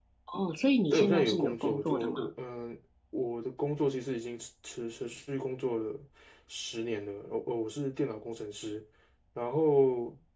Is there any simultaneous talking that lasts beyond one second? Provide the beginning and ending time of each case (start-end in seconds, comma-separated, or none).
0.9-2.3